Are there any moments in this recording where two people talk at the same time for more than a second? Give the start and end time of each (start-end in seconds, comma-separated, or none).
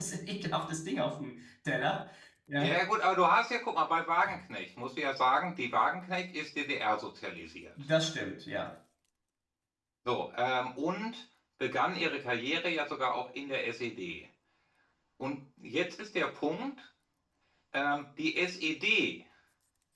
none